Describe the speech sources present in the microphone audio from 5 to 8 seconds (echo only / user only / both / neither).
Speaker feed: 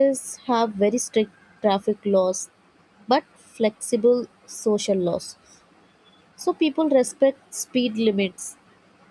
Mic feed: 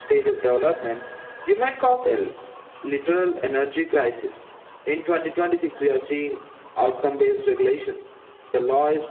user only